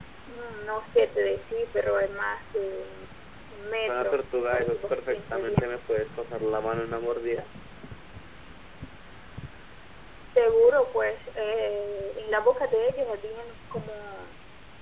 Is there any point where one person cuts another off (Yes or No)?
Yes